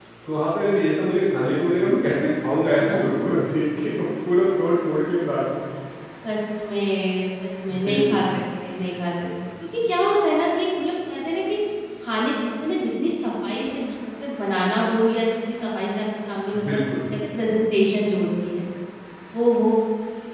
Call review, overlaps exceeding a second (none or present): none